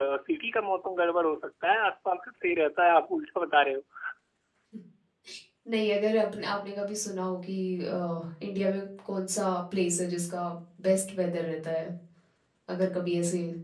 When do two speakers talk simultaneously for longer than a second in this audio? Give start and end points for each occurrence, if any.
none

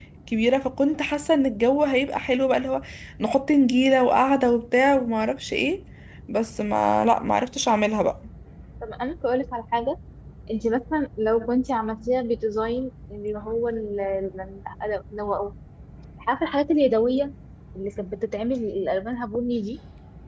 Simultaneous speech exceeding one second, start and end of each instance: none

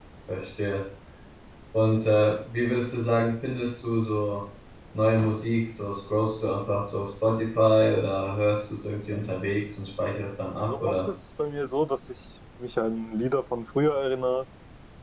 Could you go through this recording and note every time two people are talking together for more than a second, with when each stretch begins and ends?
none

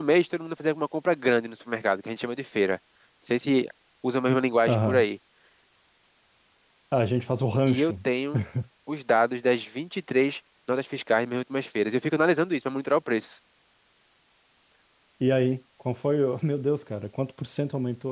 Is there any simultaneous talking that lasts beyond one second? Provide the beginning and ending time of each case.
none

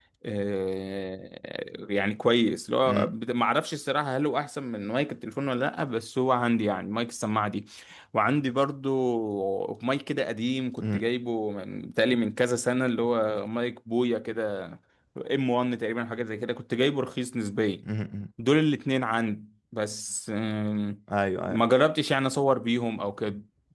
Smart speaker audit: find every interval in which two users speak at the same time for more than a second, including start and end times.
none

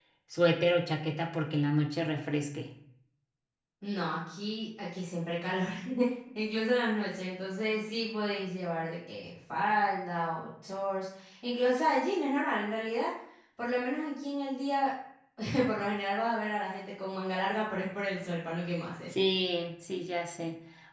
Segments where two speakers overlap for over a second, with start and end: none

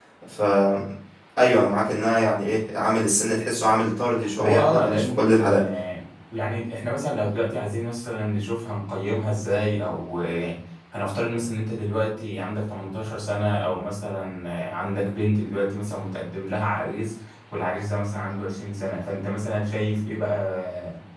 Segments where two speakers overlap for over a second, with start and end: 4.4-5.6

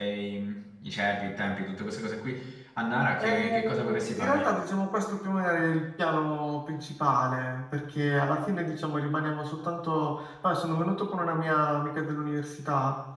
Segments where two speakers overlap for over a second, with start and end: 3.2-4.5

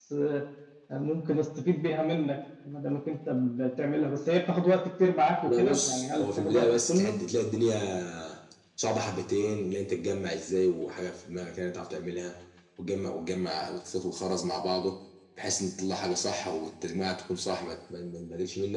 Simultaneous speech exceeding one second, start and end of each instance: 5.5-7.1

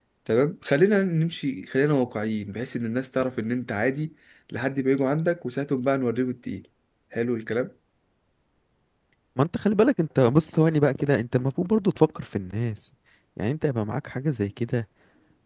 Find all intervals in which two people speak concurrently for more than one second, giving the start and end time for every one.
none

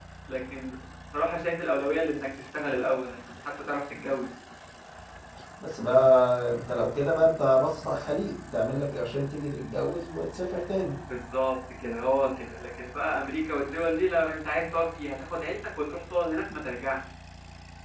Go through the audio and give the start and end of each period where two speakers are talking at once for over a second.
none

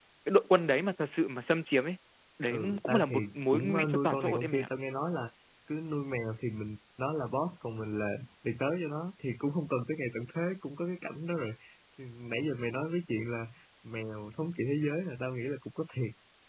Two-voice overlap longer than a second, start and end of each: 2.5-4.7

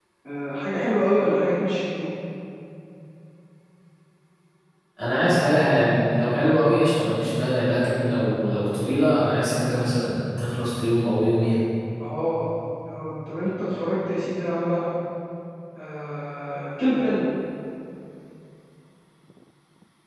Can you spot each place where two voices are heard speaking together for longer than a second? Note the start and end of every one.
none

